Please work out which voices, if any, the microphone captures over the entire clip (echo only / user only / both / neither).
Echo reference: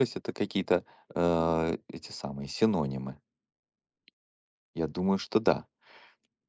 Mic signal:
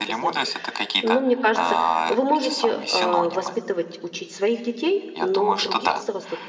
both